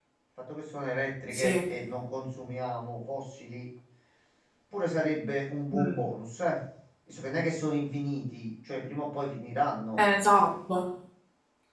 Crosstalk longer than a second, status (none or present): none